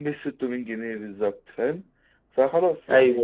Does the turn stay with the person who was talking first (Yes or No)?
No